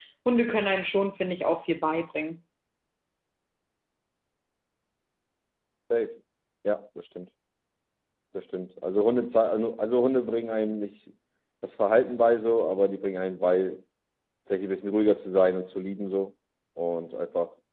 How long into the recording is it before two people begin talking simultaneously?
none

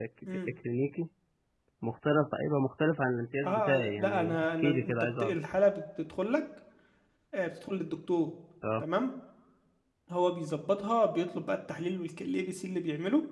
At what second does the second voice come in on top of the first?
3.4 s

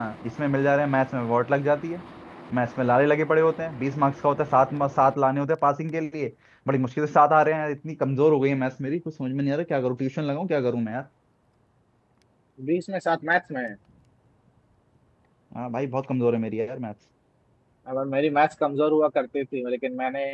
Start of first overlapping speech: none

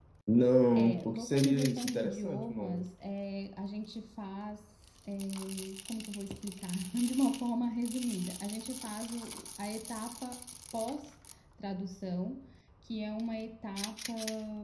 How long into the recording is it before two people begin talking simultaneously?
0.8 s

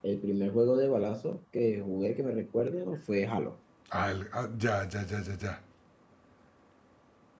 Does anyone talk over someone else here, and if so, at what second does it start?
none

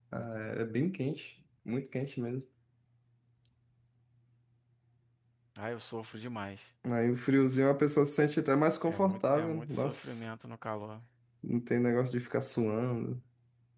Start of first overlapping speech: 8.9 s

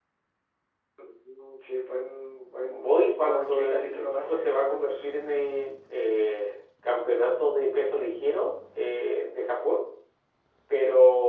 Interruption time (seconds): 2.7 s

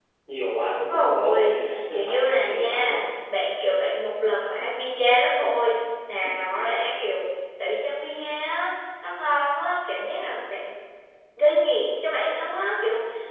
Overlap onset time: 0.7 s

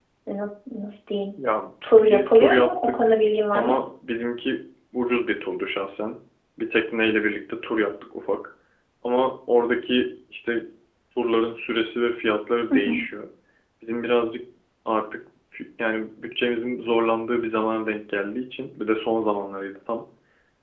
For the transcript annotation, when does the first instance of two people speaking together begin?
2.0 s

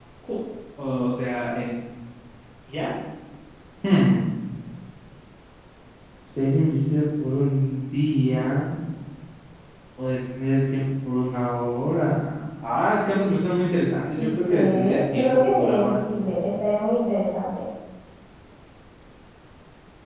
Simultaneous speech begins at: 14.2 s

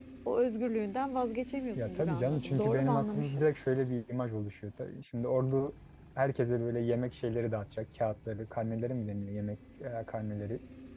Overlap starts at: 1.8 s

